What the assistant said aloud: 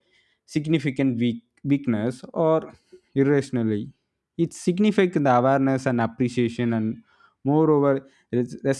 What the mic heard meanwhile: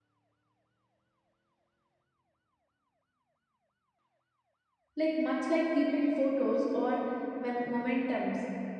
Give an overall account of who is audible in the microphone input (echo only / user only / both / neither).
user only